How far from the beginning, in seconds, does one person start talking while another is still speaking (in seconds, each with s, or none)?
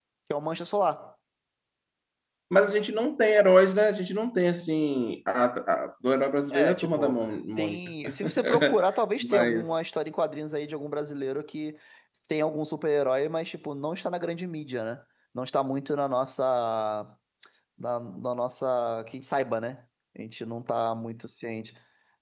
6.5 s